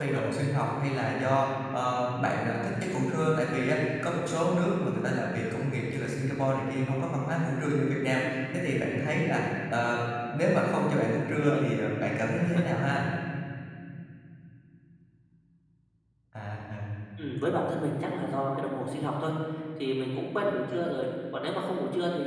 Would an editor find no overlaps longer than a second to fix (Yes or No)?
Yes